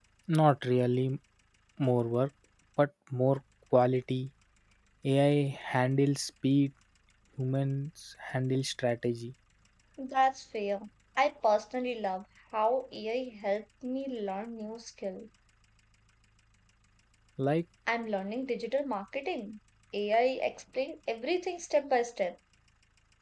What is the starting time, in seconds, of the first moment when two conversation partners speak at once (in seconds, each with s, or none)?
none